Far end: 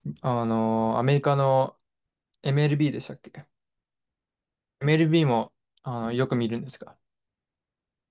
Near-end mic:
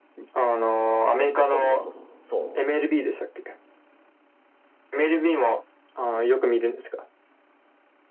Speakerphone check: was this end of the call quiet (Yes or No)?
No